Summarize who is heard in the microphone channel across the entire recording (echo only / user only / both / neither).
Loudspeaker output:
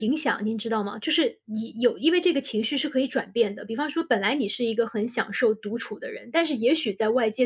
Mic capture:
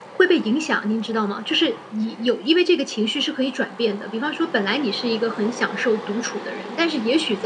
echo only